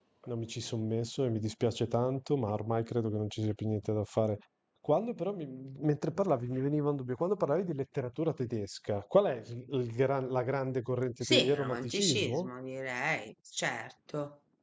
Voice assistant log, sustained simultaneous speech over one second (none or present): present